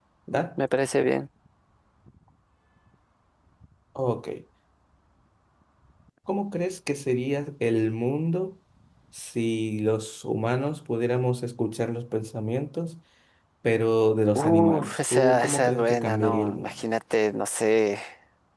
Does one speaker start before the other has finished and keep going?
Yes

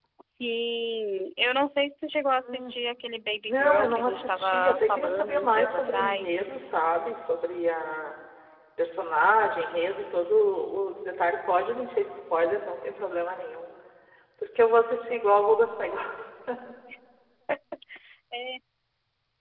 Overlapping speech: Yes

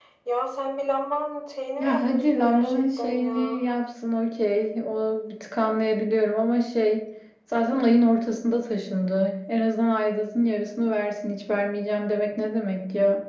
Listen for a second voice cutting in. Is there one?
Yes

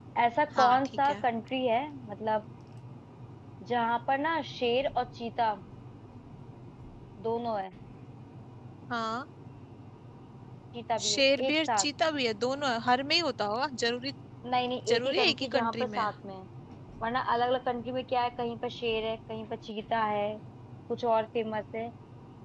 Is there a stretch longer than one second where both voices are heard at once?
Yes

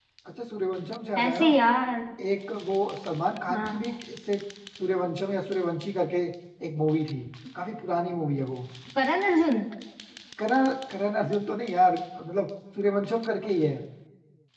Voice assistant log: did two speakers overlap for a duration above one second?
No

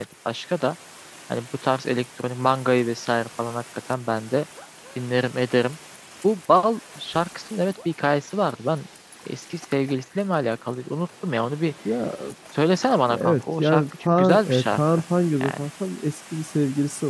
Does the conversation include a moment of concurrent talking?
Yes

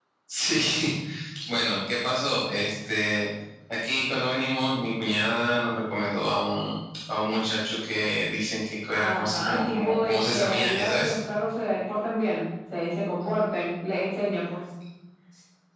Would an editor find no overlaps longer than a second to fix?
No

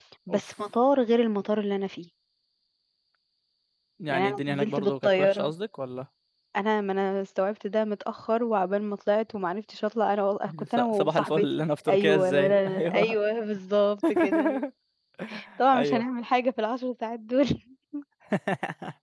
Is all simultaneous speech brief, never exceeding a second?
No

